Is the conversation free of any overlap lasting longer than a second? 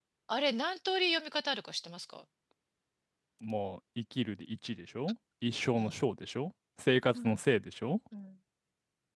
Yes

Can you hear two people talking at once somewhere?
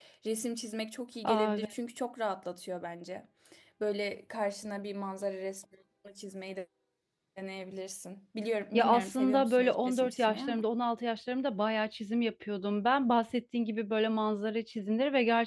Yes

